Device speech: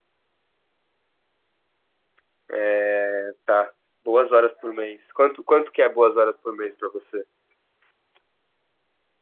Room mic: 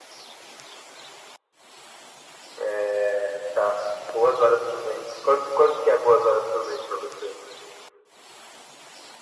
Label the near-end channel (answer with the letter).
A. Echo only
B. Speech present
A